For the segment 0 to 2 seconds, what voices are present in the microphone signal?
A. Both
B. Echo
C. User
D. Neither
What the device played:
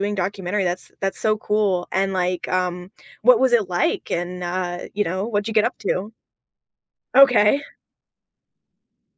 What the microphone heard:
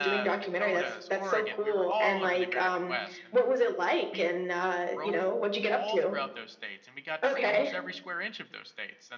A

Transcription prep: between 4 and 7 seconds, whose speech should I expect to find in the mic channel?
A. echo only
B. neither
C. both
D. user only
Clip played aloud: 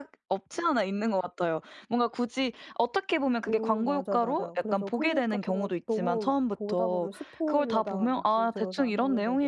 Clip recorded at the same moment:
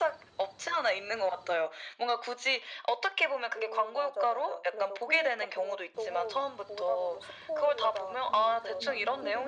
A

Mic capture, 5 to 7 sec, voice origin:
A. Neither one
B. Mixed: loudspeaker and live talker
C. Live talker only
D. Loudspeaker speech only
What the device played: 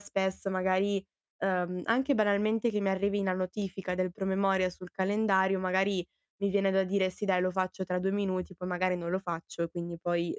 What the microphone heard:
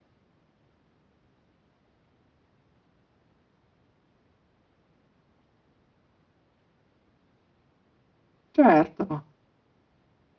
A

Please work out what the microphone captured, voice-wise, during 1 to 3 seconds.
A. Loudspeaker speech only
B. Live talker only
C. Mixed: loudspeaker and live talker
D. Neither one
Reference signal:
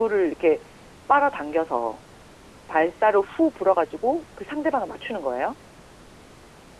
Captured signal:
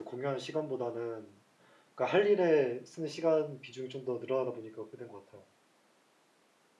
B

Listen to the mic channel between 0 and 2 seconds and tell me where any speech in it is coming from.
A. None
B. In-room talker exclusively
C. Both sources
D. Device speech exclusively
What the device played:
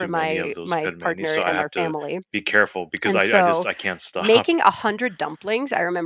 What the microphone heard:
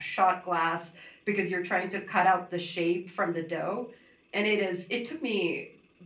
B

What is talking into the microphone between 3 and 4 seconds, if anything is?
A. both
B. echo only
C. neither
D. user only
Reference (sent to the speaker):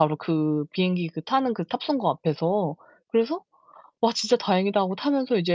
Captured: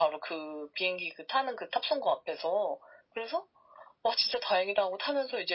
B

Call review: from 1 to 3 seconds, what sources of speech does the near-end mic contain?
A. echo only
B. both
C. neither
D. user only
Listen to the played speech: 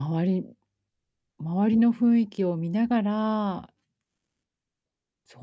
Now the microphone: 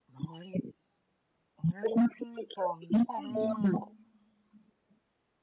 A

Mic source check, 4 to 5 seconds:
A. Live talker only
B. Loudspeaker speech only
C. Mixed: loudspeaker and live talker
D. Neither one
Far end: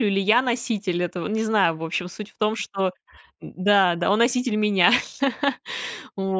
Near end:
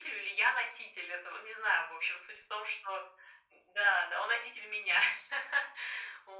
B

